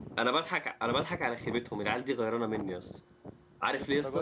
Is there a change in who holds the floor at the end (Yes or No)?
No